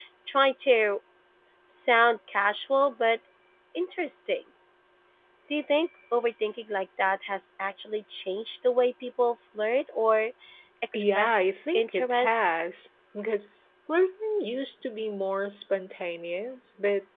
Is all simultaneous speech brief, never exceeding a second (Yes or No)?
No